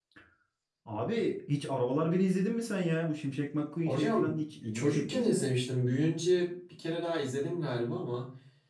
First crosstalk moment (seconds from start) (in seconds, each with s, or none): 3.9 s